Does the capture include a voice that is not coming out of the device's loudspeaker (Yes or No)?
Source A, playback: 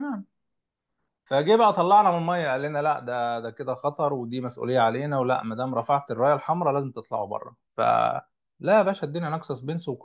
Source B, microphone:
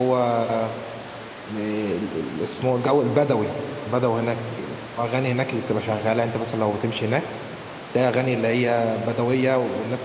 Yes